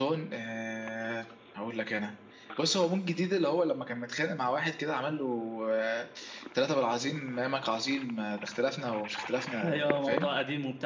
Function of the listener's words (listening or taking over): taking over